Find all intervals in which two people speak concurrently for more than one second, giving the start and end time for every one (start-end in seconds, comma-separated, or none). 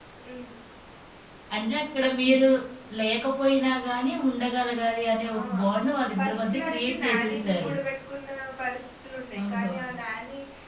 6.2-7.7